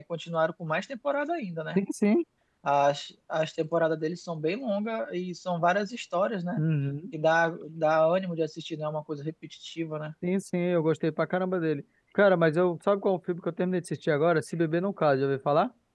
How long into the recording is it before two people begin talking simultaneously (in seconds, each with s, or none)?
none